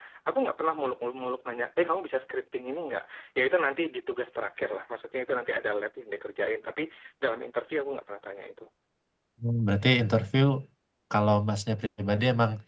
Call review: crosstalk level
none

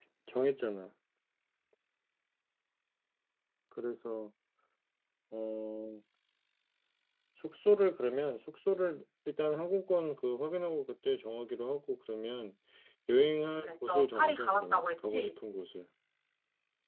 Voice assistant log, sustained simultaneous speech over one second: present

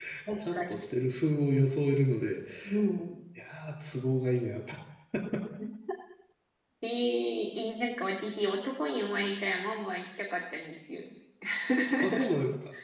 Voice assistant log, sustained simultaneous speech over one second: none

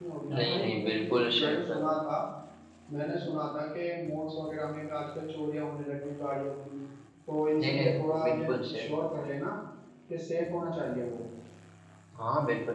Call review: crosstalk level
present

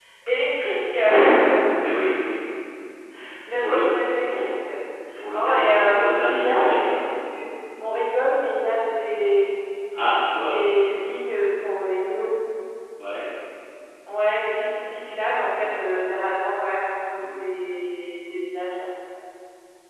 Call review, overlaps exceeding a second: present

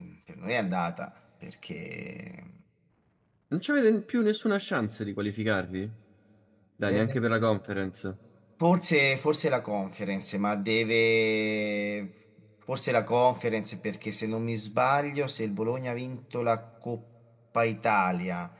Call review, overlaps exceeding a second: none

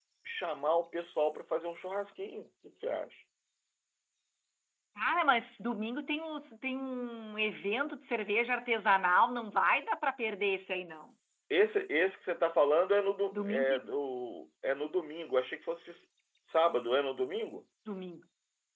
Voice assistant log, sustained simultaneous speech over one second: none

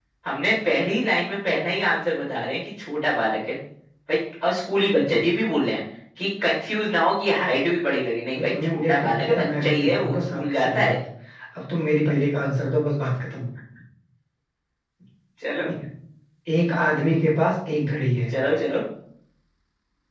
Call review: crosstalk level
present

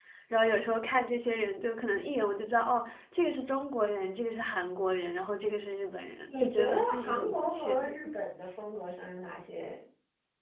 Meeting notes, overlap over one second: present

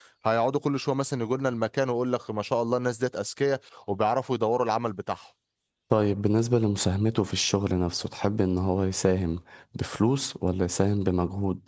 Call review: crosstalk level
none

